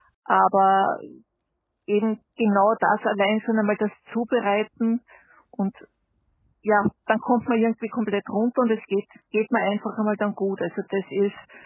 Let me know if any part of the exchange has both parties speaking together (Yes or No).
No